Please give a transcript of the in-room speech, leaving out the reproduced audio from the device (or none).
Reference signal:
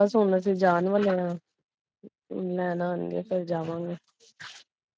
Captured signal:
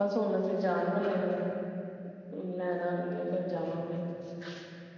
none